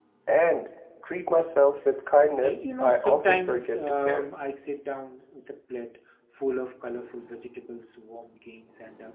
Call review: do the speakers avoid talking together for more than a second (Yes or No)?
No